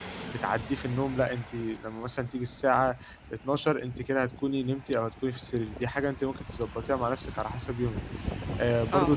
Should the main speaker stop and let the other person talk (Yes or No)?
No